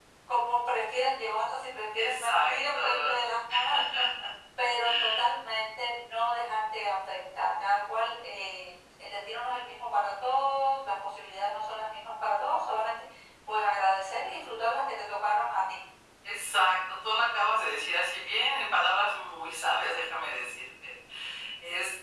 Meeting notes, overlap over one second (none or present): present